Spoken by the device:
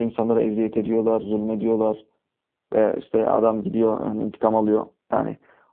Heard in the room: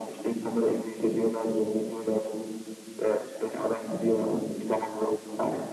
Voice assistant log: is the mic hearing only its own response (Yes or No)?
Yes